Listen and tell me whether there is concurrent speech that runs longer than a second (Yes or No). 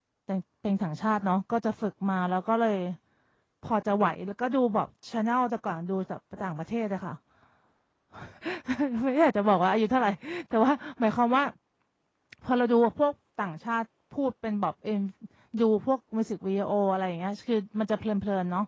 No